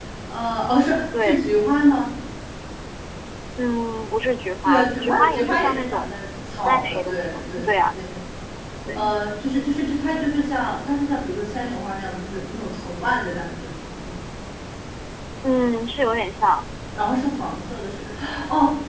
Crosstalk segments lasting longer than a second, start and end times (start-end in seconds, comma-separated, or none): 4.6-6.1, 6.7-7.9